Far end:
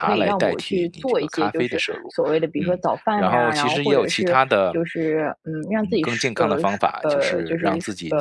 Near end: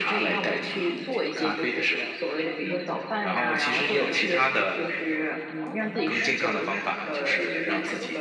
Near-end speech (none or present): present